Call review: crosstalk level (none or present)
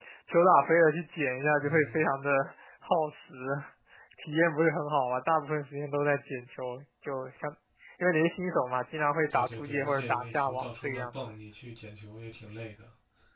present